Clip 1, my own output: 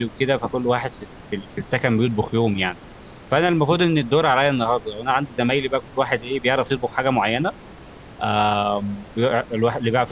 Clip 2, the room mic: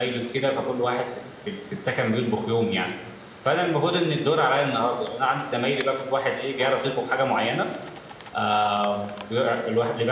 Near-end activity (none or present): none